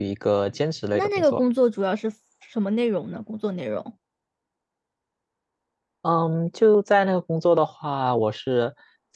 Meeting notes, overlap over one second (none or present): none